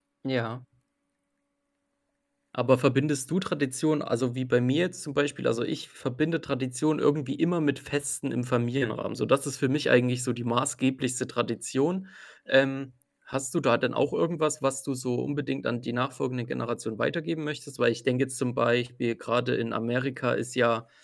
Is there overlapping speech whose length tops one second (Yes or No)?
No